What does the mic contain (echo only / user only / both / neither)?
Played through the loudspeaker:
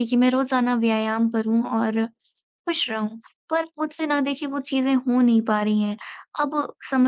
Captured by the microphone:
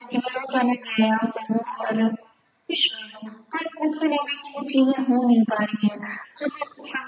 echo only